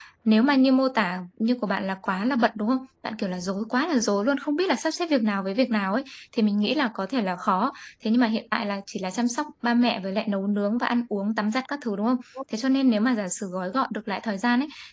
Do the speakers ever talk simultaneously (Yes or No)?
No